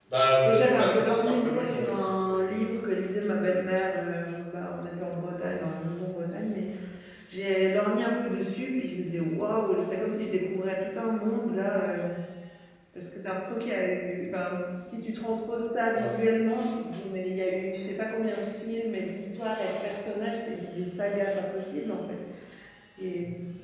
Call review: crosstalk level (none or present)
present